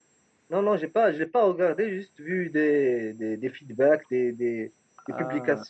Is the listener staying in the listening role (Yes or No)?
Yes